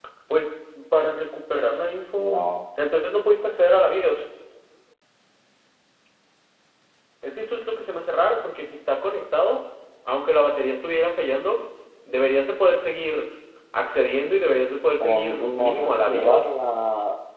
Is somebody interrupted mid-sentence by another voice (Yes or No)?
Yes